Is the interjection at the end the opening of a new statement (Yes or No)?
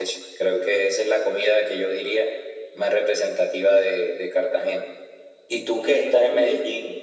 No